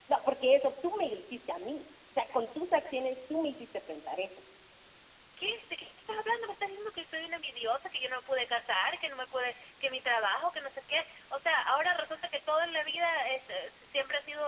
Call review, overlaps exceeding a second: none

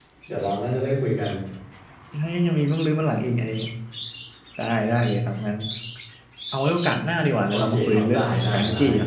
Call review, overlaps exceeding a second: present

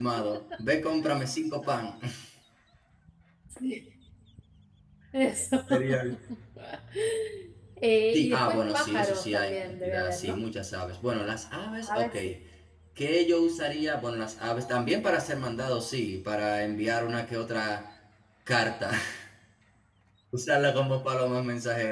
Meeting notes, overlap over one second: present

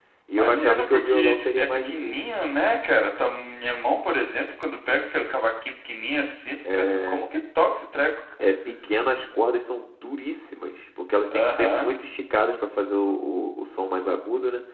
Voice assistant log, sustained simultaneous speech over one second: present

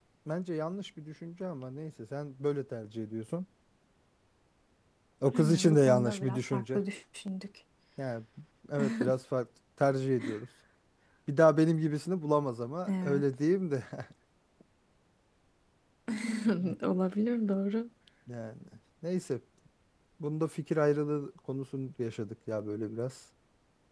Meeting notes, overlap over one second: present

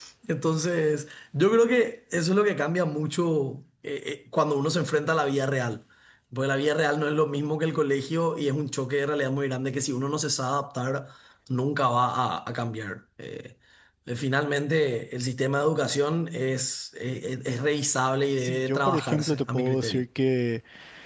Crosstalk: present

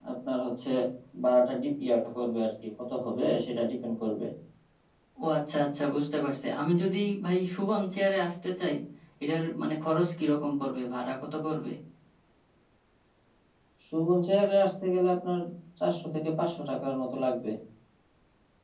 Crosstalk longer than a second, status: none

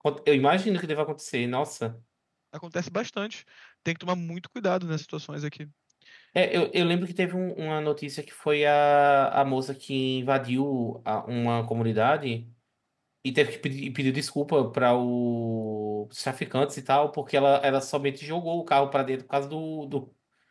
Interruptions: none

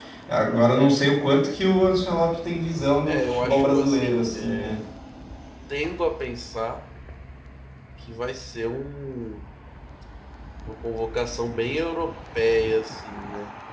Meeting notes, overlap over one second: present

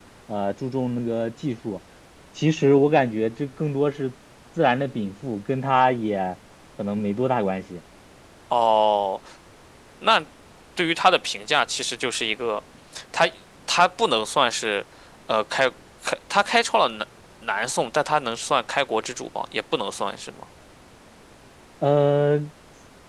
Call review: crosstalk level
none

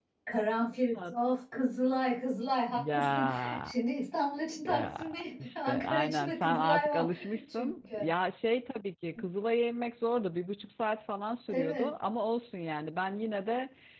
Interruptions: present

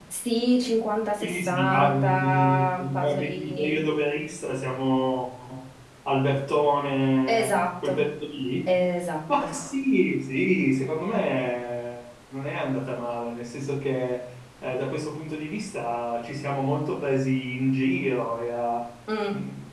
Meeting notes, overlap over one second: present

